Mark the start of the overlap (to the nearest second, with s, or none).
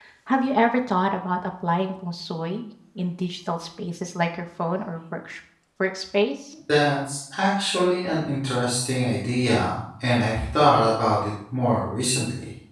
none